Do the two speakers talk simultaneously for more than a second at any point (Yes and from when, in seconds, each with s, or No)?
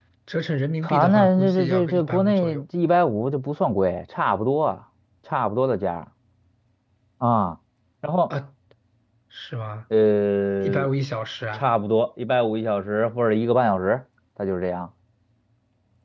Yes, from 0.8 s